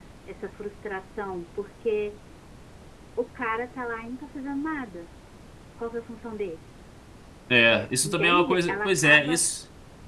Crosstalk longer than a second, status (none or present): present